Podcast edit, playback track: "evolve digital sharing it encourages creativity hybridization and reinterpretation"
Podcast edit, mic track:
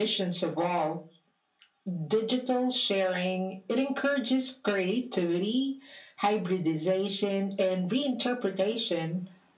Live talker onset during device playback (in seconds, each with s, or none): none